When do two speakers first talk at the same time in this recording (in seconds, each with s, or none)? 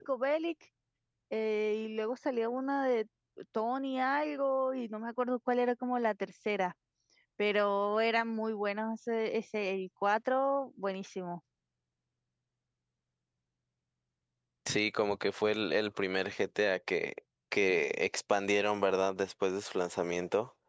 none